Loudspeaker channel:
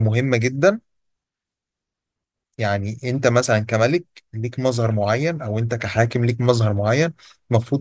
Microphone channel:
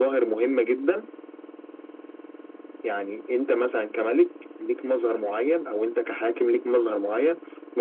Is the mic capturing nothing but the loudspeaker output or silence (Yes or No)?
Yes